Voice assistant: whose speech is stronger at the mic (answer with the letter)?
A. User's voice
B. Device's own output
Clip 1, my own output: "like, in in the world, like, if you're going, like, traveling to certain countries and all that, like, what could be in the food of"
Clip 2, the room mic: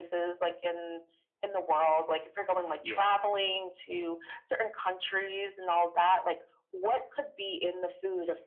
B